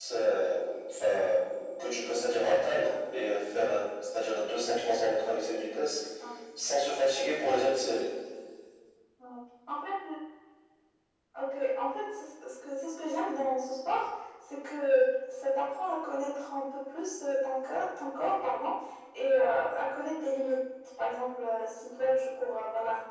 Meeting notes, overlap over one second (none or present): none